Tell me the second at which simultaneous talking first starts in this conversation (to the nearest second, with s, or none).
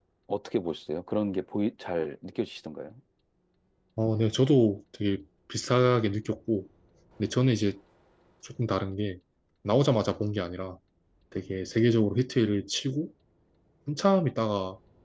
none